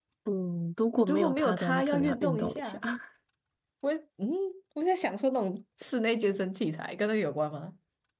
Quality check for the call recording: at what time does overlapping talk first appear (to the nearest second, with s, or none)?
1 s